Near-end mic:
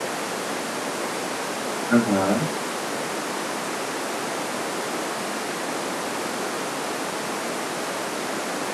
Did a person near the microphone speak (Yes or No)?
Yes